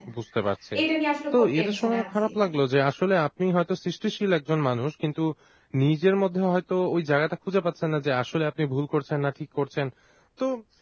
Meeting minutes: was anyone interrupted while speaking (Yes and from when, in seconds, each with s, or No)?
Yes, from 1.3 s